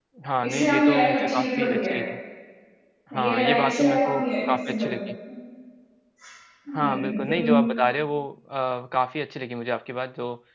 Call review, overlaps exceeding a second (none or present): present